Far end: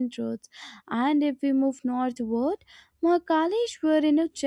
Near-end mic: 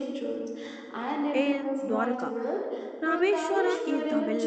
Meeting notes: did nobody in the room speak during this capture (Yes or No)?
No